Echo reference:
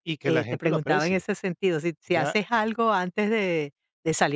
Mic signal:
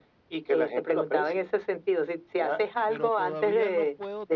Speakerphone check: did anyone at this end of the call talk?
Yes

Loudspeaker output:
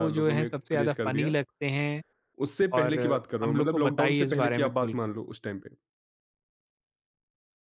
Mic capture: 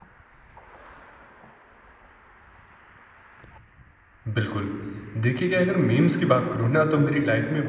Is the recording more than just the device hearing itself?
Yes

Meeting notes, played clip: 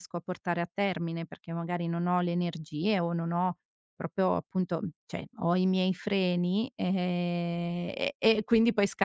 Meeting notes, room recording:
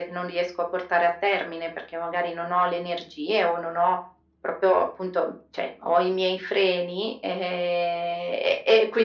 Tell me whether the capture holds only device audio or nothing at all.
Yes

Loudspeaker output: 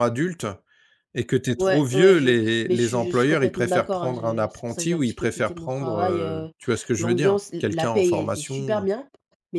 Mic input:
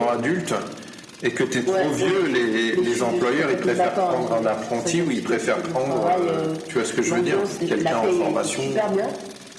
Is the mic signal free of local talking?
Yes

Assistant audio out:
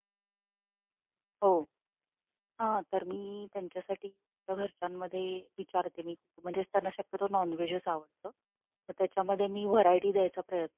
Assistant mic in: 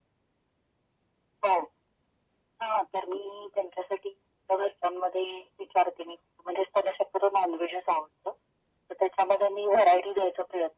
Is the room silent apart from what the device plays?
Yes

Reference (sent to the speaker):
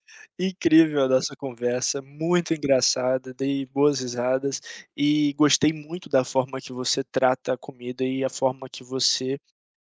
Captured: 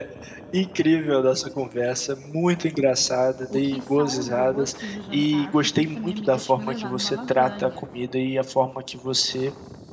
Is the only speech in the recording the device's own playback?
No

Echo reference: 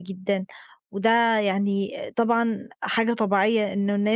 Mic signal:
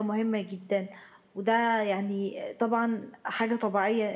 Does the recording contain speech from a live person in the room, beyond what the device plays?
No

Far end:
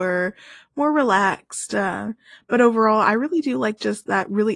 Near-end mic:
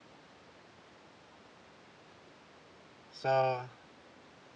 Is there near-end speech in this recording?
Yes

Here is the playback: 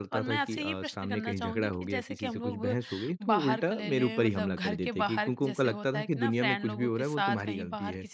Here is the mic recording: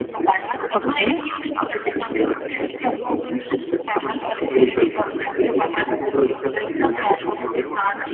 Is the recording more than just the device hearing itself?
Yes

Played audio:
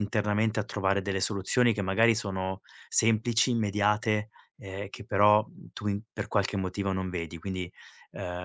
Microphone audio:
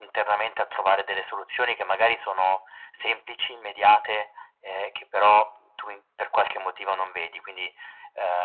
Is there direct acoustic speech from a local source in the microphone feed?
No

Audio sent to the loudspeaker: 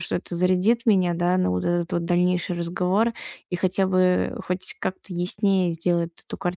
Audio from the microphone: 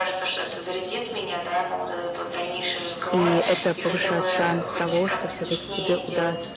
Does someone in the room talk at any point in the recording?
Yes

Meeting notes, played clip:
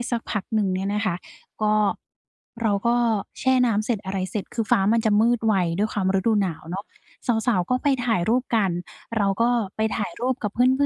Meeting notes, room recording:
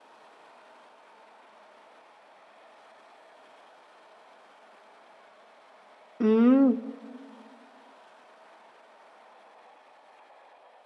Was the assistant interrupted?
Yes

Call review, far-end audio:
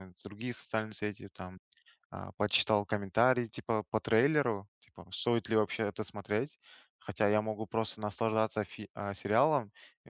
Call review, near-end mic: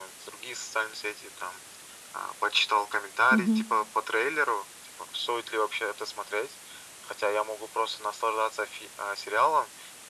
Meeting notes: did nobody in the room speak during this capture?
No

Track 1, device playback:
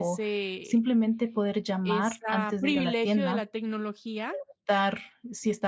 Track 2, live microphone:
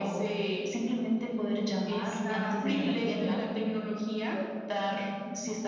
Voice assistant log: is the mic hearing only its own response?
Yes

